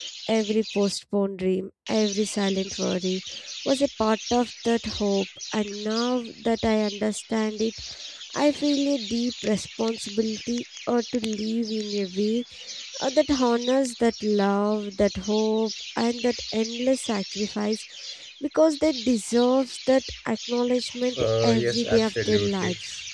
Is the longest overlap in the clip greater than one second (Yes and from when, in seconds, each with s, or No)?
Yes, from 21.2 s